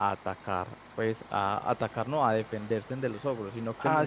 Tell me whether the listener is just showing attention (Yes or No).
No